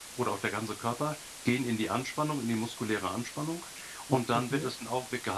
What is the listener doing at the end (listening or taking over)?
listening